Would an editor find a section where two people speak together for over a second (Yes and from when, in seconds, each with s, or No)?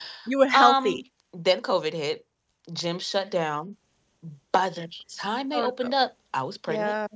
No